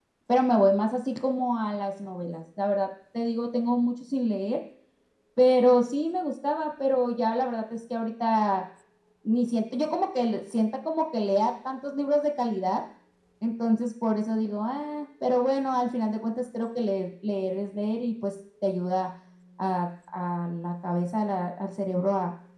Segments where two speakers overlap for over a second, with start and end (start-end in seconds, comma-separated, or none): none